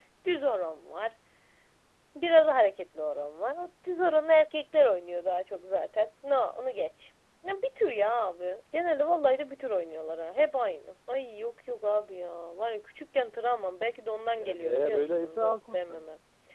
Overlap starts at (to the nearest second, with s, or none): 14 s